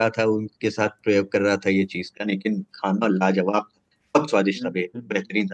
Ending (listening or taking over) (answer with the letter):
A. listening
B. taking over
A